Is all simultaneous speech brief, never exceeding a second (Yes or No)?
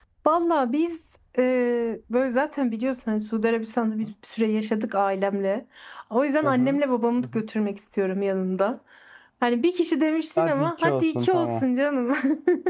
No